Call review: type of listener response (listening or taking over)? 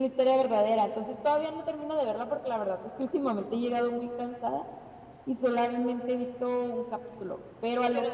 taking over